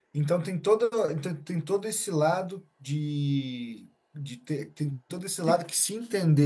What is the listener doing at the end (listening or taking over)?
listening